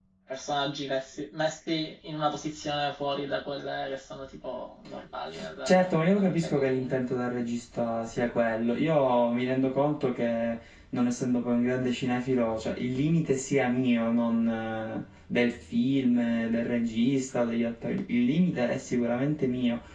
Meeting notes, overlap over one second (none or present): present